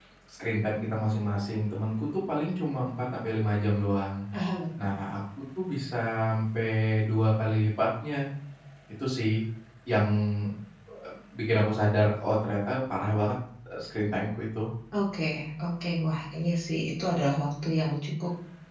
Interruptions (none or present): none